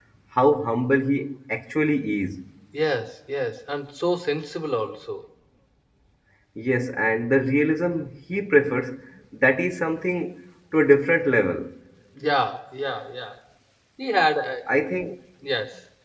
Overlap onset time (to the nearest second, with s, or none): none